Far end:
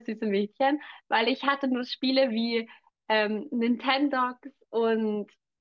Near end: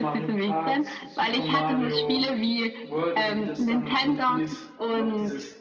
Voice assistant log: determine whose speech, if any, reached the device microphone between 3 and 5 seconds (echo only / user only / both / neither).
both